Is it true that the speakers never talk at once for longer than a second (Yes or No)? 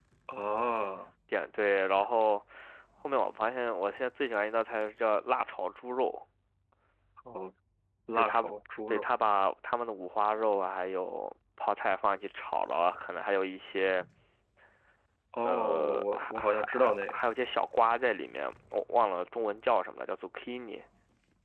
No